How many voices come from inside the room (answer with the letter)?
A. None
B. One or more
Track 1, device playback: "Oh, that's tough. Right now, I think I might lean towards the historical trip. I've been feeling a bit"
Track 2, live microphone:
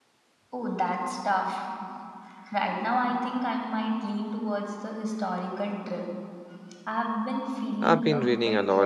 B